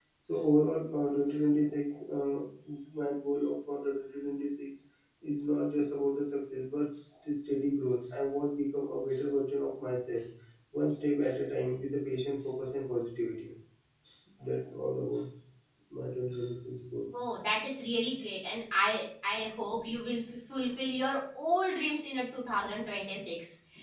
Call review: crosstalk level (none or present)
none